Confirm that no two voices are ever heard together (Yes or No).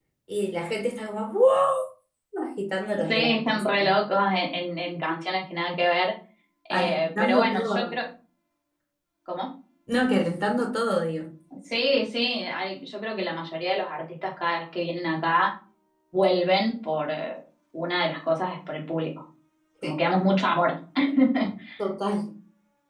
No